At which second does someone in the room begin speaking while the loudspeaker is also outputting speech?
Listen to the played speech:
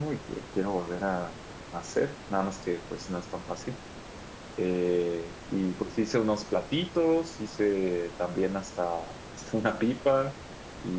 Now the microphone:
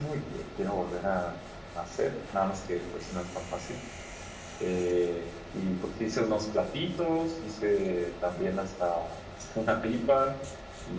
none

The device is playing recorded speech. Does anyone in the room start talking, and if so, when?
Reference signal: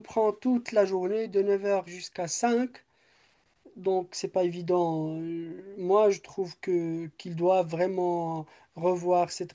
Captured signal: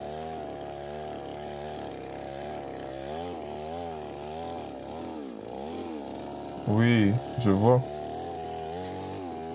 7 s

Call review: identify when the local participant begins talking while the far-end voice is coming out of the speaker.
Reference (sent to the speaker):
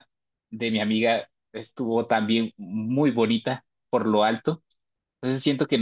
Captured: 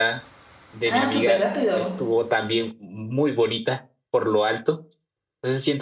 1 s

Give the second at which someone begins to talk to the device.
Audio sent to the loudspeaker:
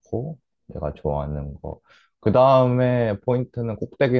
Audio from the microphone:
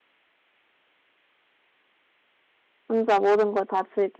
3 s

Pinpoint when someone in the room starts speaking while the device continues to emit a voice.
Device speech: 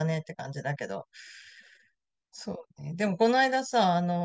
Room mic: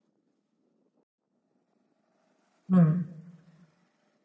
3 s

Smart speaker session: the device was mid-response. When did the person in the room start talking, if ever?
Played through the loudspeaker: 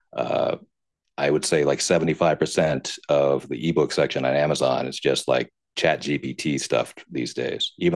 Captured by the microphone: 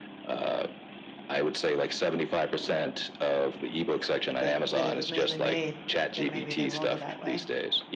4 s

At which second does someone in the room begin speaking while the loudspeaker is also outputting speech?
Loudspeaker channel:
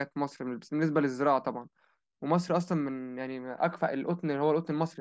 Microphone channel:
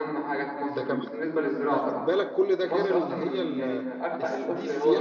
1 s

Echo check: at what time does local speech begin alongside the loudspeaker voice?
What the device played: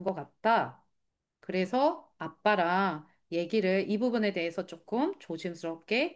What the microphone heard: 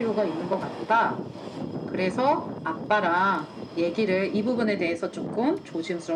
none

